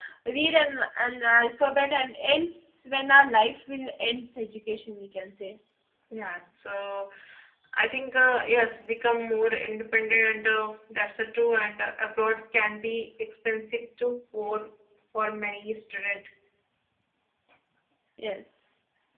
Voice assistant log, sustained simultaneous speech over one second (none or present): none